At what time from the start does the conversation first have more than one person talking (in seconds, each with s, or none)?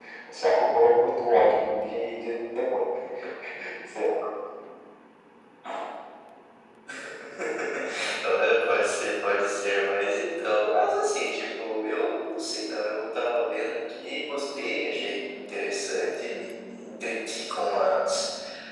none